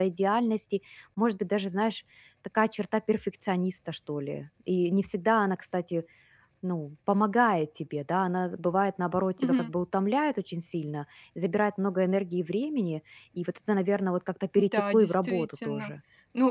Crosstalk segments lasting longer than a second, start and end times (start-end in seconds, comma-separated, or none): 14.6-15.9